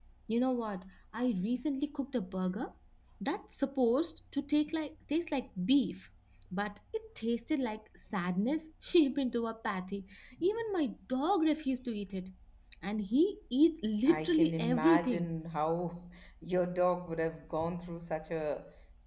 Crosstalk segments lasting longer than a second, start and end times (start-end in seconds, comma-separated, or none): 14.1-15.3